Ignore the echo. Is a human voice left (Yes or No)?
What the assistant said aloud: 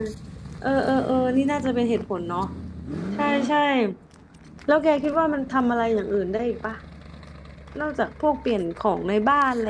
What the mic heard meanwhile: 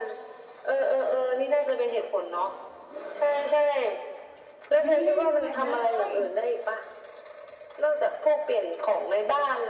Yes